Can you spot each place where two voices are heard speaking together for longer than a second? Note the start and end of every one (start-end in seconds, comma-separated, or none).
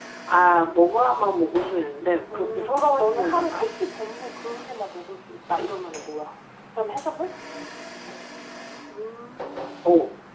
2.3-3.6